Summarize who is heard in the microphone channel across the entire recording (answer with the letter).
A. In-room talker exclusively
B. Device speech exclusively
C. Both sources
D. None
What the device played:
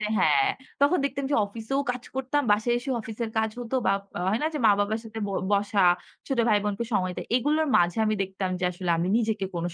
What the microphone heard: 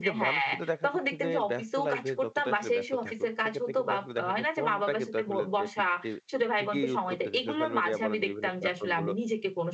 C